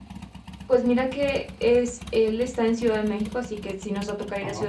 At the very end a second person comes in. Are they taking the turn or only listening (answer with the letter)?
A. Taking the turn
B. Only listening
B